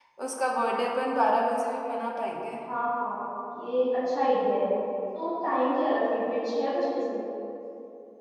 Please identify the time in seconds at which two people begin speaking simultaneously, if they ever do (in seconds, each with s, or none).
none